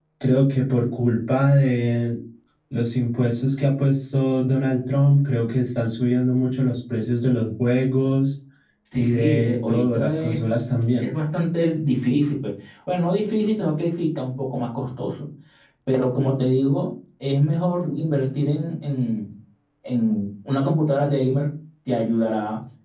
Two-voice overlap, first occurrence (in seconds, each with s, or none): 8.9 s